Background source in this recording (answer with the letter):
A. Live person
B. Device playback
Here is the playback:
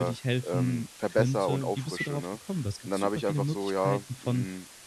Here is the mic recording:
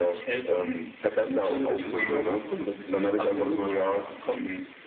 A